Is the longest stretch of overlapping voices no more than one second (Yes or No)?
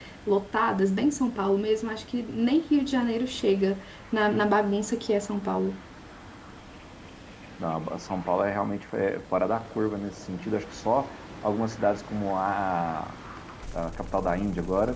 Yes